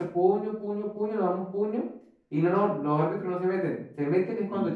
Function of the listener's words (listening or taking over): listening